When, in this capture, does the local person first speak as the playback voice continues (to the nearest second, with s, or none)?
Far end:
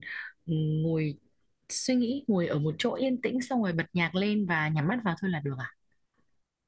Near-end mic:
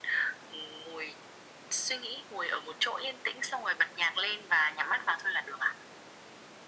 none